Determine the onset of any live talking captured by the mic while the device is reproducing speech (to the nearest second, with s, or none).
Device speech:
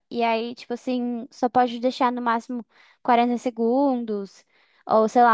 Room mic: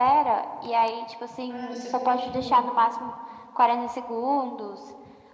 1 s